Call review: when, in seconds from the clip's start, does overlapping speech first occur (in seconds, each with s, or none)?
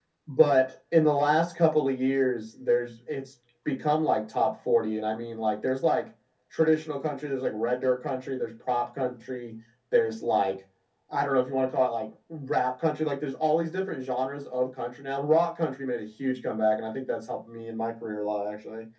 none